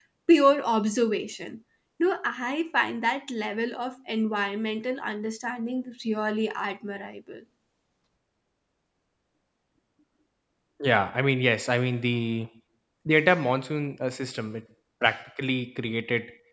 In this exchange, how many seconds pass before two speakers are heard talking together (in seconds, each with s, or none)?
none